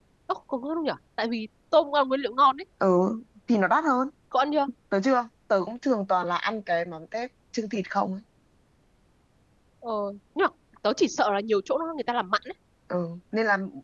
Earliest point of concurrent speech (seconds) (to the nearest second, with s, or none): none